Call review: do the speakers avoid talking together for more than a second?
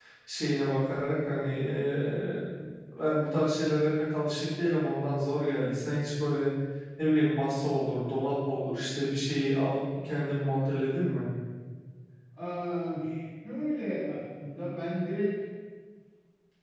Yes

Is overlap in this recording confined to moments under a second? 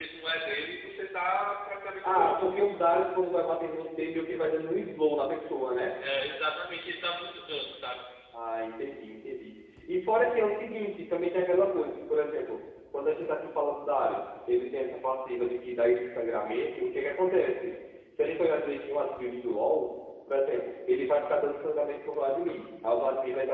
Yes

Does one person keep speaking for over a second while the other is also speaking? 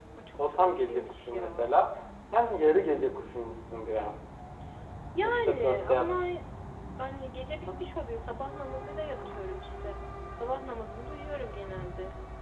Yes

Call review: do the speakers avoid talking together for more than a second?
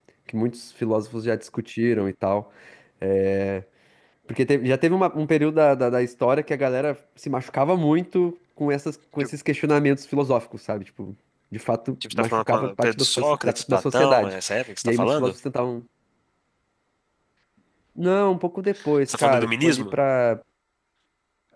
No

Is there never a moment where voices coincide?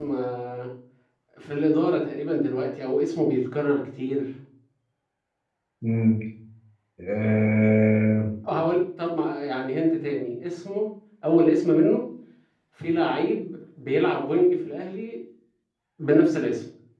Yes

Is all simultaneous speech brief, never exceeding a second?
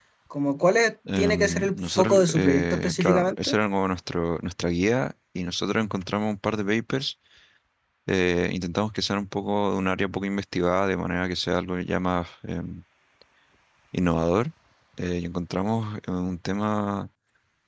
No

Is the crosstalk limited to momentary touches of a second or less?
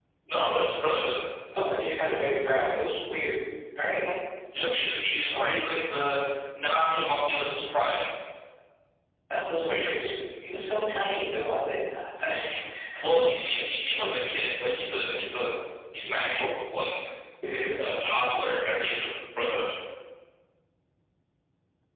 Yes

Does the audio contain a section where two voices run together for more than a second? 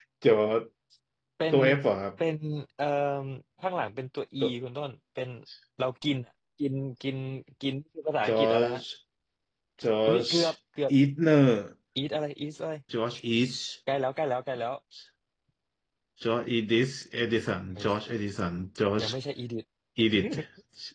No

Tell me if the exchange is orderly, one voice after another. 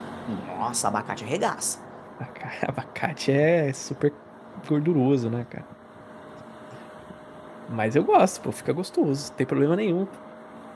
Yes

